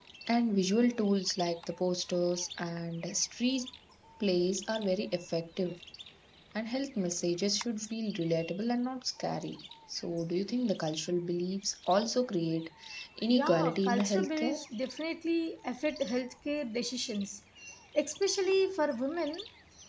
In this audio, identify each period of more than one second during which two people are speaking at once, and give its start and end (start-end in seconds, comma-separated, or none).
13.3-14.6